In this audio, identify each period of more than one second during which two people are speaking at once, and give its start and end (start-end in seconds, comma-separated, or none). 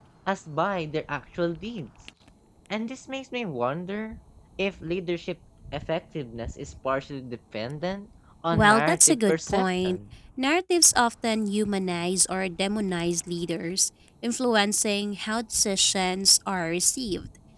8.5-10.0